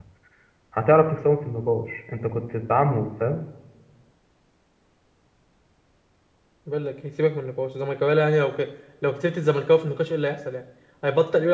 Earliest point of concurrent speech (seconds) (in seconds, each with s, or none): none